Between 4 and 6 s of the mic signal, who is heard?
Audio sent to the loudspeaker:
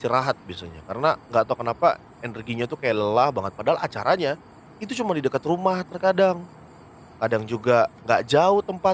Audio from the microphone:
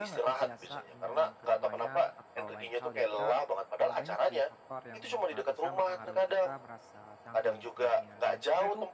both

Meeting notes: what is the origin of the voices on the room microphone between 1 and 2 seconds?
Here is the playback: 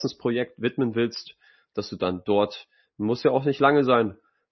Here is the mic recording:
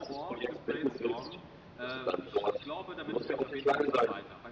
both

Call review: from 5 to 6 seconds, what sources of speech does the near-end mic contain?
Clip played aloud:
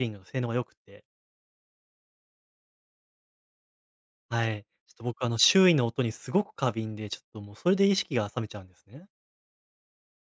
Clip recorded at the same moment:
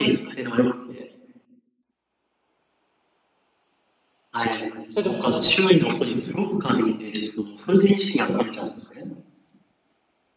both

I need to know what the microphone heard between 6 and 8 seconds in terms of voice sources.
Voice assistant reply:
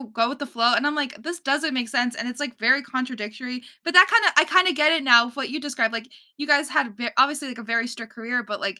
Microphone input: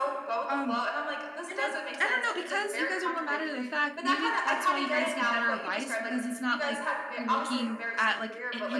both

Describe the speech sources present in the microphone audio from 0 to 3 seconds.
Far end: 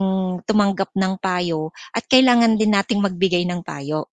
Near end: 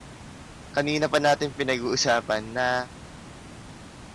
user only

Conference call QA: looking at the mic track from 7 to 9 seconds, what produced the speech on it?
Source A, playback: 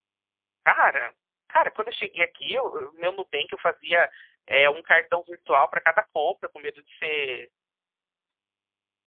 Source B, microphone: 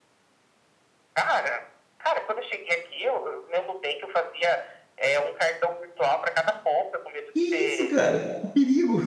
both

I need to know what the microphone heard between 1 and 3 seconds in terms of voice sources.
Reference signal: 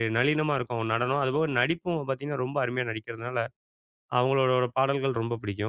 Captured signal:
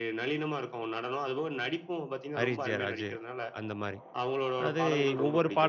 both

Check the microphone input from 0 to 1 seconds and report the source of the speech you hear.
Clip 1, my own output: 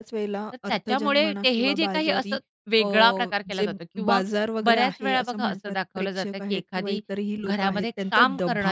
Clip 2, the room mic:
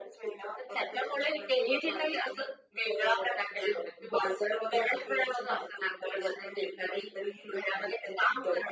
echo only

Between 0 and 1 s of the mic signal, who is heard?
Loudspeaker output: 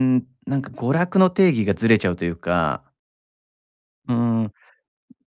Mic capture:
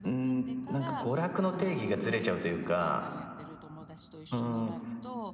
both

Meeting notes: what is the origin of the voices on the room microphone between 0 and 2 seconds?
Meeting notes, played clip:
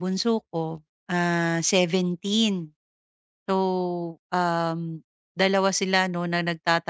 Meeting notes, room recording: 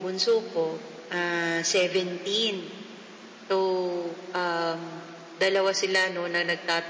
echo only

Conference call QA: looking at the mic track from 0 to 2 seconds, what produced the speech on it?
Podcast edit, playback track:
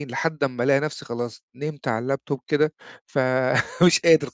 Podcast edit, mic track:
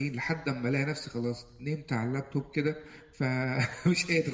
echo only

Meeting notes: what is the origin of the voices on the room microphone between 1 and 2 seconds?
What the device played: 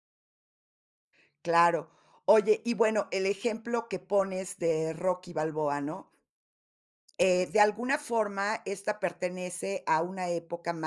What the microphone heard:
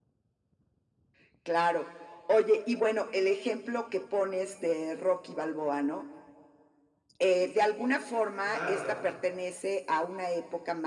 echo only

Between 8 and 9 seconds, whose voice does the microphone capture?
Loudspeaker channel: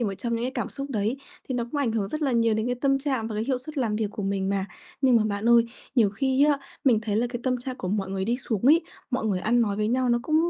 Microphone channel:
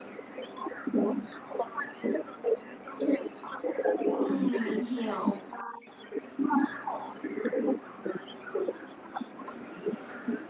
echo only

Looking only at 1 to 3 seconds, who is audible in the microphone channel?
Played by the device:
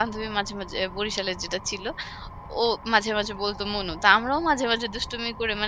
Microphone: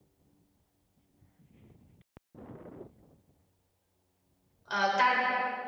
neither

